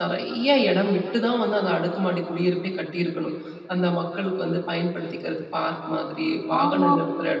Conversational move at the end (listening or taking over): taking over